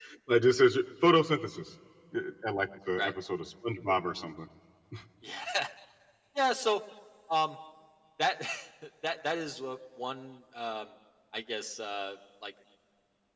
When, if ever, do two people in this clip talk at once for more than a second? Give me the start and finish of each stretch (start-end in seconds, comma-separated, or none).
none